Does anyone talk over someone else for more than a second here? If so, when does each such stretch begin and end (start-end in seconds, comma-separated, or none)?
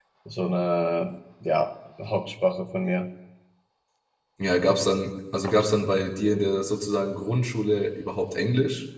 none